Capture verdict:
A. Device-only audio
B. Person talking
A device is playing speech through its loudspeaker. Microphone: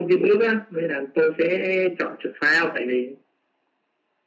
A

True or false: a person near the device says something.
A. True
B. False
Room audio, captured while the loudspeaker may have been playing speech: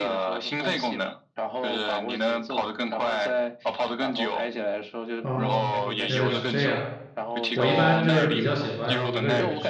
A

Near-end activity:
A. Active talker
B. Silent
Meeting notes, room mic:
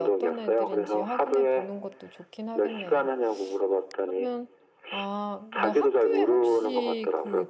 A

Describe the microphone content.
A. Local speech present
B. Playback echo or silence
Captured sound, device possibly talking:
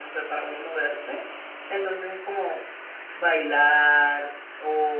A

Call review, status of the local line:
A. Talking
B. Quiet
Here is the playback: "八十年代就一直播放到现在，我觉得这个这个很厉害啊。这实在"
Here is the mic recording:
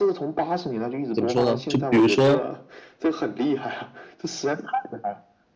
A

